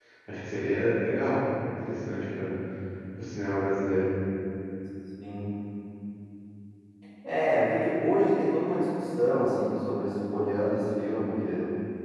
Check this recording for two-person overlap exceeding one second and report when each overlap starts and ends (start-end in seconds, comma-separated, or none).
none